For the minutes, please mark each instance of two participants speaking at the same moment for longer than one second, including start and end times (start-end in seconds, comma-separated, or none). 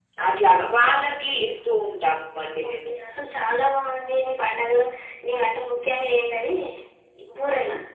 none